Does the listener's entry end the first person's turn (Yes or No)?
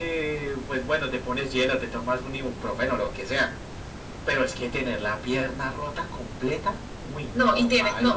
Yes